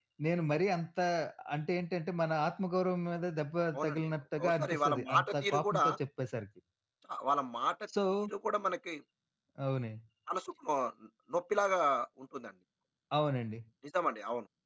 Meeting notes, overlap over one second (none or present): present